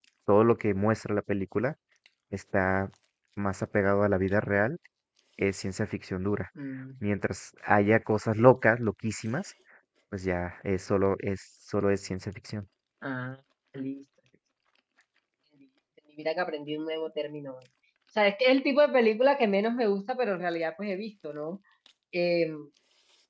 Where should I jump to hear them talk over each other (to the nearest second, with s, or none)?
none